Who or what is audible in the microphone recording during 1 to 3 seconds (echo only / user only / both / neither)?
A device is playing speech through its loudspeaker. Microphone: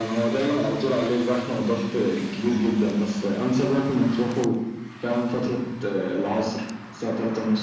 echo only